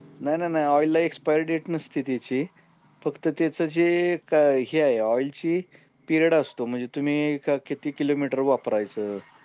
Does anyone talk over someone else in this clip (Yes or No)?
No